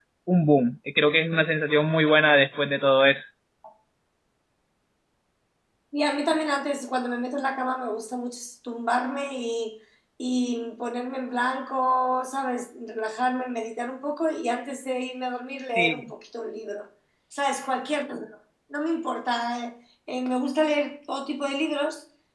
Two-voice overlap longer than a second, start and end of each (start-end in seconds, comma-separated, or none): none